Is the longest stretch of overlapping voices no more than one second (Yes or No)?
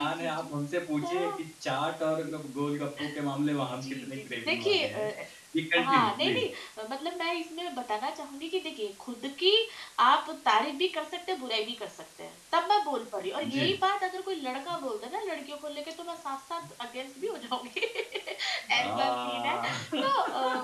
No